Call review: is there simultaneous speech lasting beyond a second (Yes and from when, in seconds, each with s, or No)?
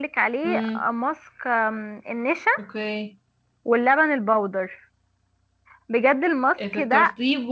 No